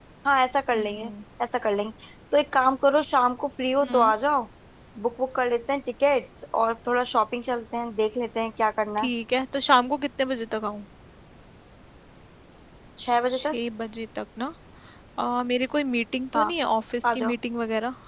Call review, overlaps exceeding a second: none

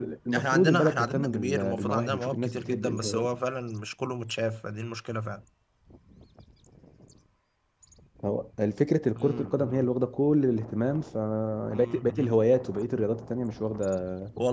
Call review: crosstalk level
present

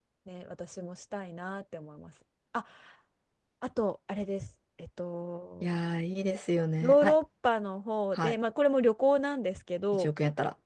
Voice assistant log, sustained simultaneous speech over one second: none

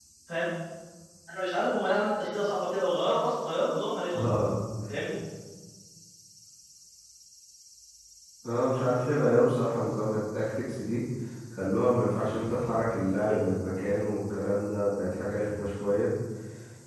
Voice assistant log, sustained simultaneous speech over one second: none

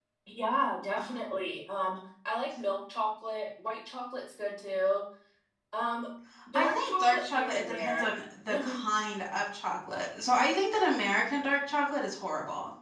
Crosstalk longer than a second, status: present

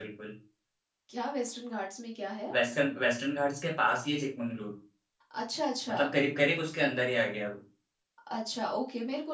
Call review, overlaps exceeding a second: none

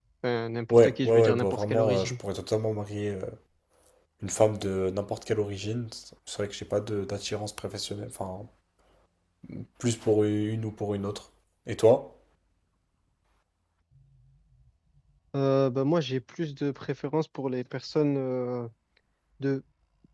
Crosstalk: present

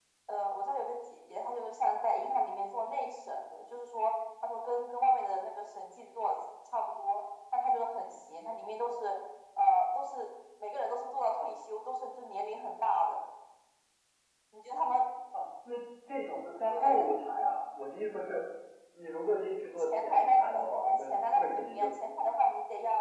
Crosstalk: present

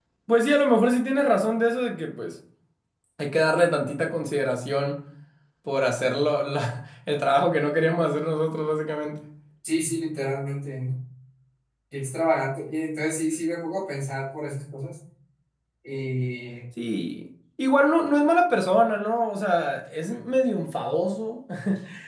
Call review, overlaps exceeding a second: none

